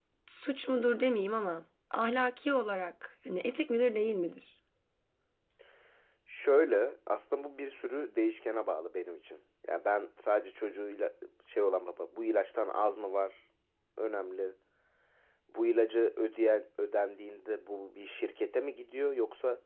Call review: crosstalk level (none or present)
none